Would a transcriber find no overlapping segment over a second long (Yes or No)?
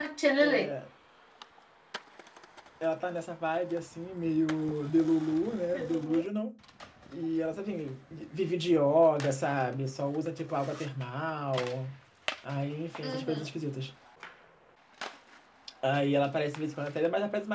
Yes